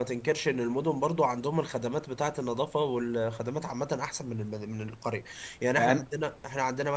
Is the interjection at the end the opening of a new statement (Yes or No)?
No